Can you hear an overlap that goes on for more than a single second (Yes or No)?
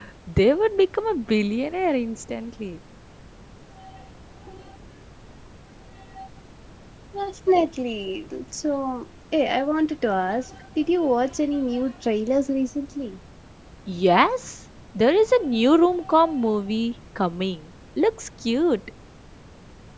No